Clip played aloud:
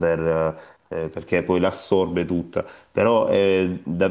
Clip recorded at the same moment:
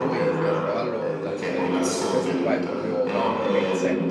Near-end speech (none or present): present